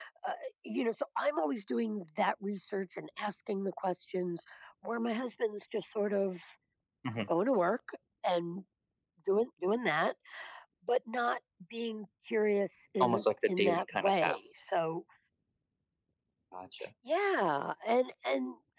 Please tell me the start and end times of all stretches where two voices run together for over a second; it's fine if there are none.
13.0-14.4

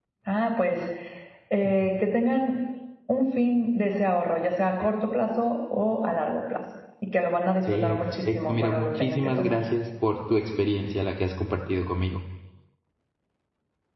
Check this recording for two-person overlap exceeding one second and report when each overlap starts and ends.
7.7-9.6

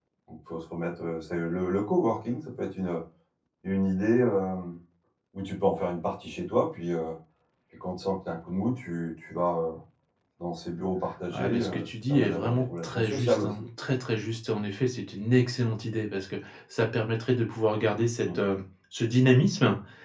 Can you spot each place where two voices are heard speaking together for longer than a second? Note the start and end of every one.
11.3-13.7

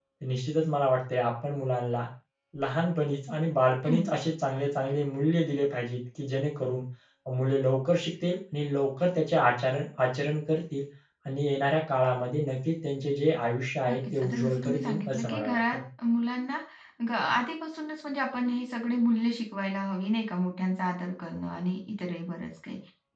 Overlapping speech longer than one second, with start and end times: 13.9-15.8

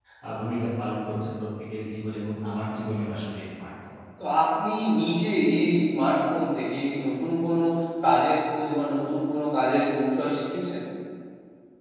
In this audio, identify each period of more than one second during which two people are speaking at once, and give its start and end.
none

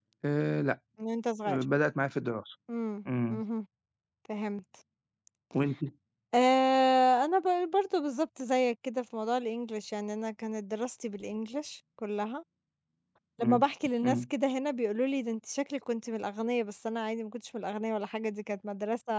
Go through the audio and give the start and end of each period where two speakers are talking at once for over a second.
none

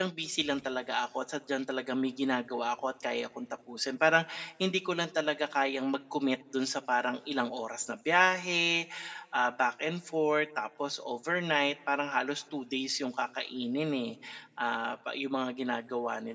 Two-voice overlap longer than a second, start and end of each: none

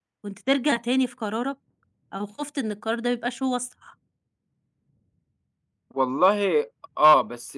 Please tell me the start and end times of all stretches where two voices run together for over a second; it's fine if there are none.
none

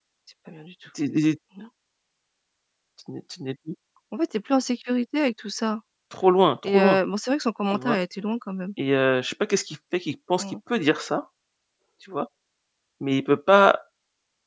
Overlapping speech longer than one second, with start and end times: none

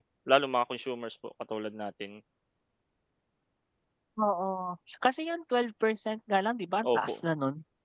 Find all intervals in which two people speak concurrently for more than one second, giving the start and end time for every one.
none

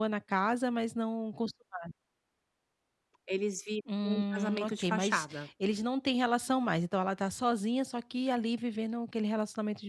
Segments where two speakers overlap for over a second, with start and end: 4.0-5.4

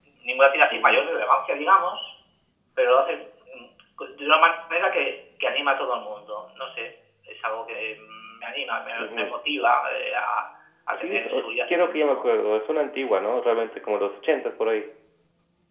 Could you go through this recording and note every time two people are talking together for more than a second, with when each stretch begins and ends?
10.9-12.2

